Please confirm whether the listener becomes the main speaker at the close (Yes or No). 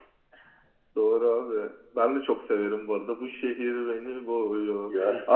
No